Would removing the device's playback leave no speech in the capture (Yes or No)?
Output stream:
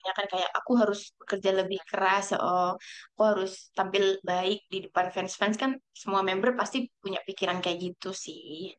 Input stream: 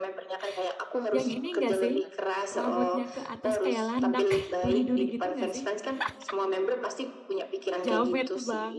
No